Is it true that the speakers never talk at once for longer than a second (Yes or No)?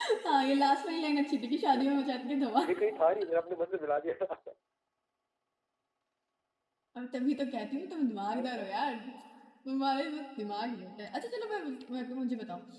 Yes